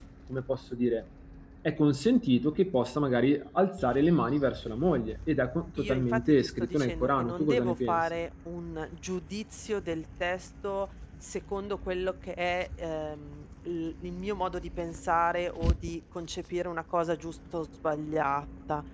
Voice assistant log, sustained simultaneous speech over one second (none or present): present